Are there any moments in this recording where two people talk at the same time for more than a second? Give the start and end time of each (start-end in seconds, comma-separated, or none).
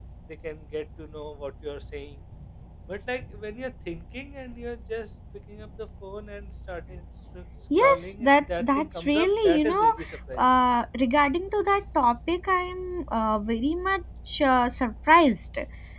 7.8-9.9